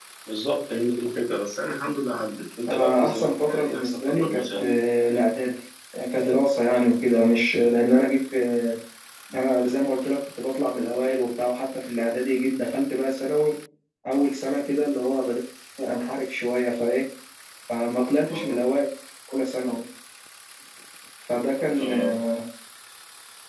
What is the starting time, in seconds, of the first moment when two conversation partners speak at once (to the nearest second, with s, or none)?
3 s